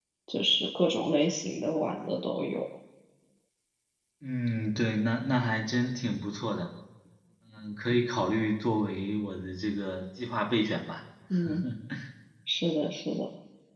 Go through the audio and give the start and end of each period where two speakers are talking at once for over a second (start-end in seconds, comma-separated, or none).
none